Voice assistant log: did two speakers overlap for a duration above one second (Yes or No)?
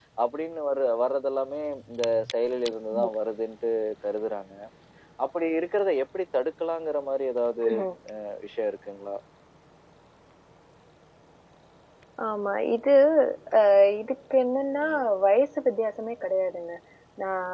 No